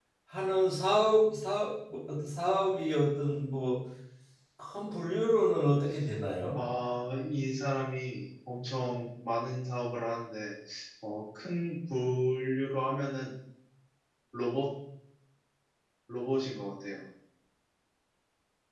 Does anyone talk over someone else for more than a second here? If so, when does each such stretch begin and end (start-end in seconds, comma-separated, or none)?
none